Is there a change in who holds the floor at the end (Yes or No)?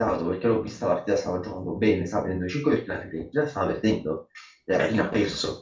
No